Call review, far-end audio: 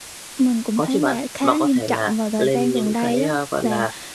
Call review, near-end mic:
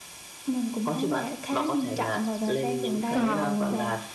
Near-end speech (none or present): present